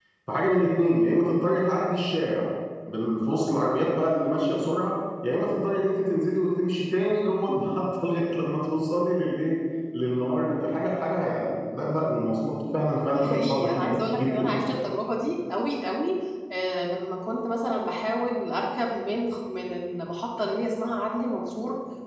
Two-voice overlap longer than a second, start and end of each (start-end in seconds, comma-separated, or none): 13.1-14.5